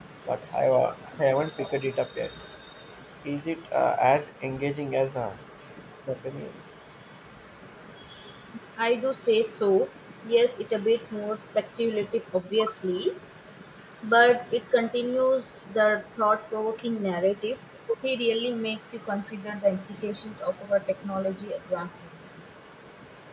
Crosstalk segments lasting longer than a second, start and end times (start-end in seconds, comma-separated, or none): none